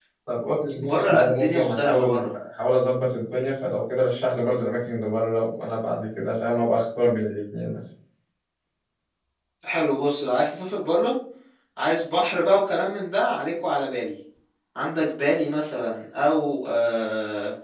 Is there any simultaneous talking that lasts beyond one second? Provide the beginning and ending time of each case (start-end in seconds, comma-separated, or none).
0.8-2.3